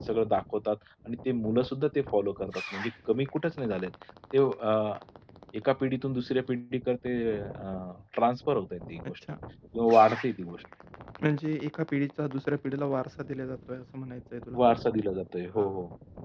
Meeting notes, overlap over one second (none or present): none